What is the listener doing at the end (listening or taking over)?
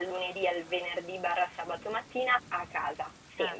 listening